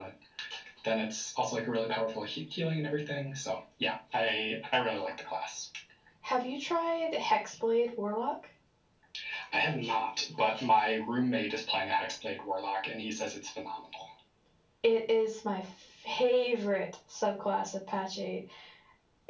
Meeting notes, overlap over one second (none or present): none